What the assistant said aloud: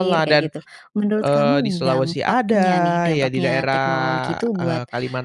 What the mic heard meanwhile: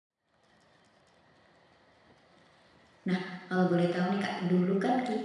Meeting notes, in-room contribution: present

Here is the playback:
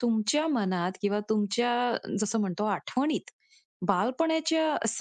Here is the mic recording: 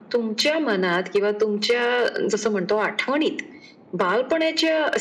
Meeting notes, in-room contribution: none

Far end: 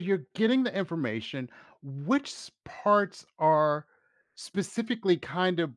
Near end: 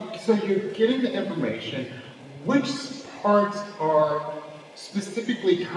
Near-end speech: none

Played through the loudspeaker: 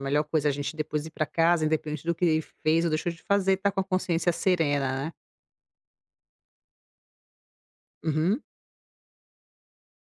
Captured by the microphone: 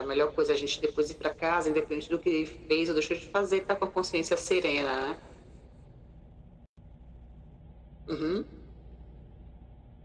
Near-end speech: none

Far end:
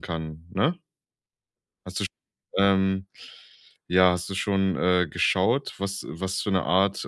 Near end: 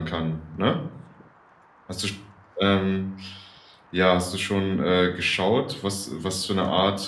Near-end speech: none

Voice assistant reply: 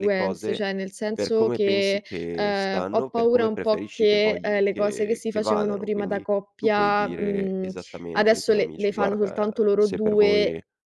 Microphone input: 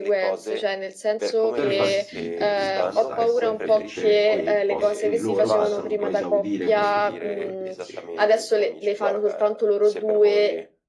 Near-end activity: present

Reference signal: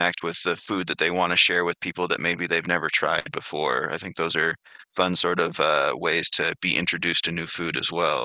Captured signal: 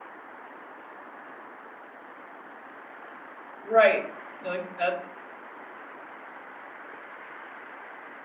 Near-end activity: present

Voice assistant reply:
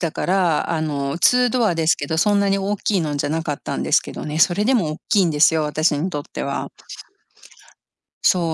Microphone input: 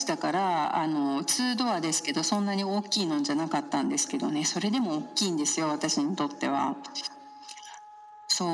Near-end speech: none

